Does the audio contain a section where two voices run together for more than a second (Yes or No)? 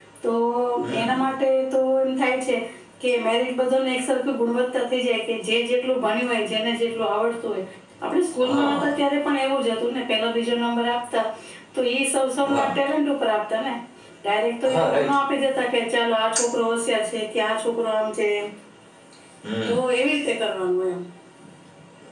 No